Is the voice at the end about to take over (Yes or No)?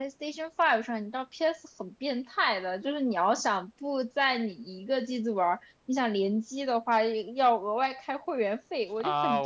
Yes